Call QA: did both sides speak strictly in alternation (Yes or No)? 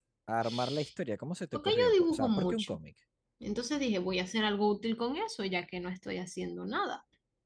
No